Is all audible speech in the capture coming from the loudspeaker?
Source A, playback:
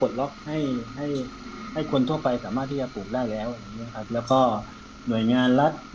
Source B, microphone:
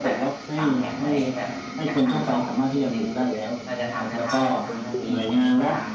No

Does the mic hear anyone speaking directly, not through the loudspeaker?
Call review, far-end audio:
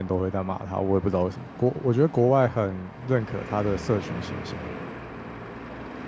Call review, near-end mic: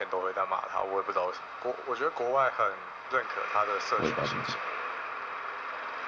Yes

